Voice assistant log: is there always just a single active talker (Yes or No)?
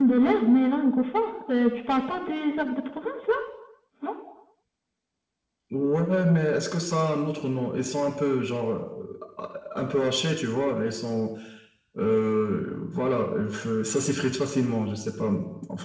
Yes